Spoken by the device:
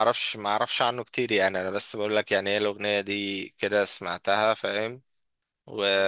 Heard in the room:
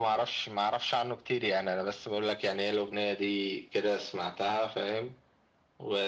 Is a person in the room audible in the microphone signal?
No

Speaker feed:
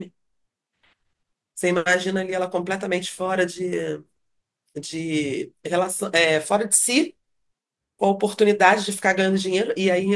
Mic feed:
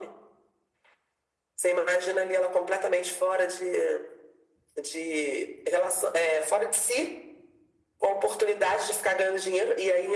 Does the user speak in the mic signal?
No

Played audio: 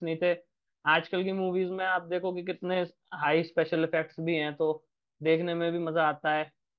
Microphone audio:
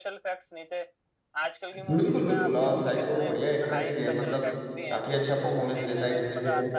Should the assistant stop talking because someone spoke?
Yes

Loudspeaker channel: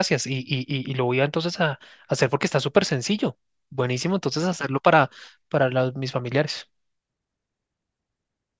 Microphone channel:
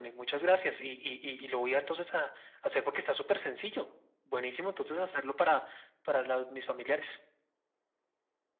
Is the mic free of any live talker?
Yes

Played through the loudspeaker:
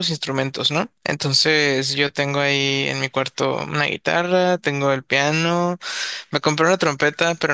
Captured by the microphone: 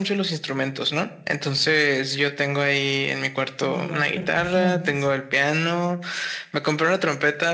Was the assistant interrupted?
Yes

